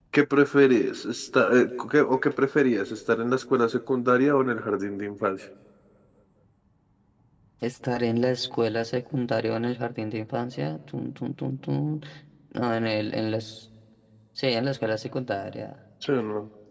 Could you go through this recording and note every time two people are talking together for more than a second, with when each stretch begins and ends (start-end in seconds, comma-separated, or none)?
none